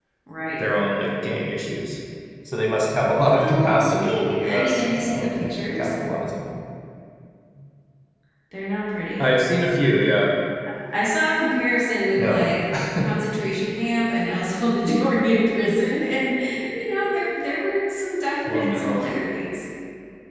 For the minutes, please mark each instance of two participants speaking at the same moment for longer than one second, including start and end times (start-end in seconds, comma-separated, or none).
3.2-5.9